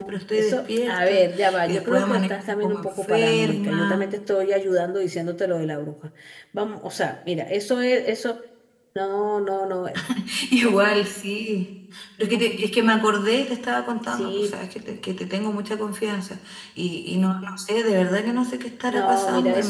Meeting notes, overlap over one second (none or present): present